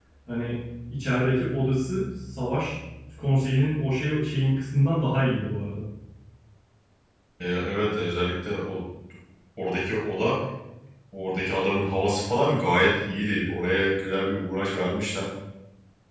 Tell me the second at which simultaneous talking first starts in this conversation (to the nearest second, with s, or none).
none